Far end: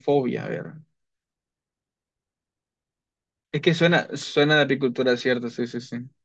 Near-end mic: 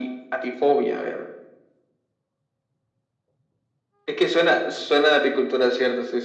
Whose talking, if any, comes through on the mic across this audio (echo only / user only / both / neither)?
echo only